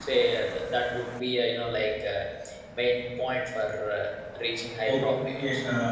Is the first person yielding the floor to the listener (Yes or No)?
Yes